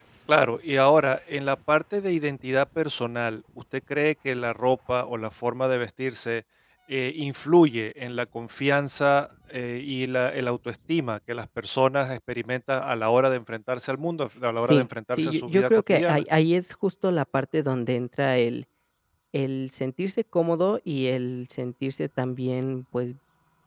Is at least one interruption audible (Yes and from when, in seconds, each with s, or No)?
Yes, from 14.6 s